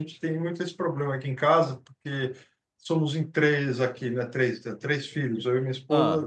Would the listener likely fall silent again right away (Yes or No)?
Yes